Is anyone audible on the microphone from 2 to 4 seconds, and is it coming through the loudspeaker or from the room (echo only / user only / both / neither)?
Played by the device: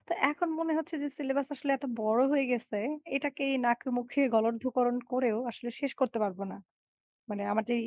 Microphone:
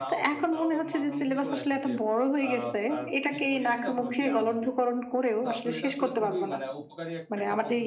both